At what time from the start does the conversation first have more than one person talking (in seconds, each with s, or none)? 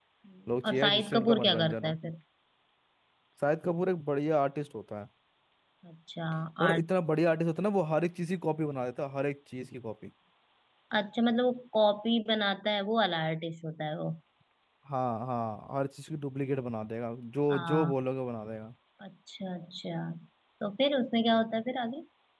0.6 s